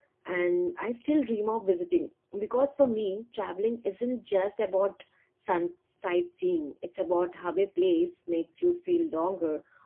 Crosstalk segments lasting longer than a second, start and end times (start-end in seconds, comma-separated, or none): none